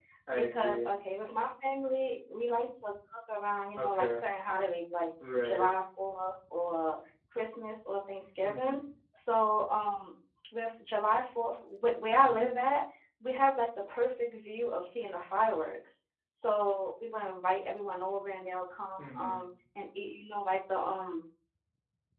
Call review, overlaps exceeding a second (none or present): none